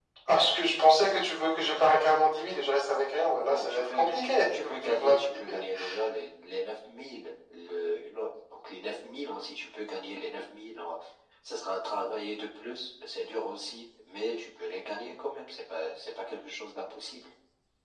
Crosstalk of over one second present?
Yes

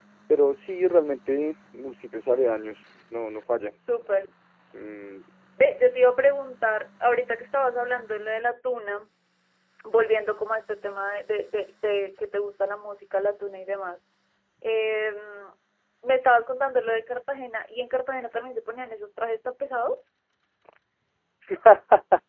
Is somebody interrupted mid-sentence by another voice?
No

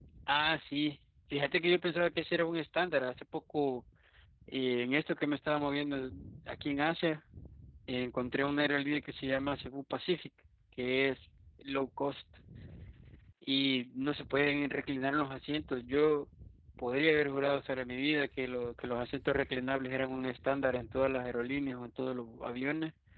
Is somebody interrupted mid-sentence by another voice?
No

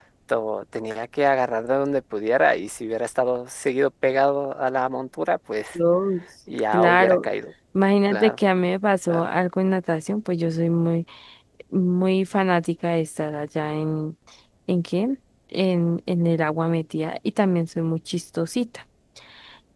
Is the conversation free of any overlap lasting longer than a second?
Yes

